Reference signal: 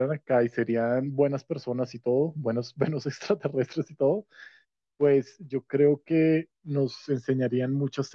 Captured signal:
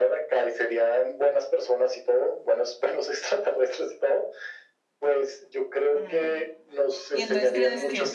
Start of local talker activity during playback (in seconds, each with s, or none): 5.9 s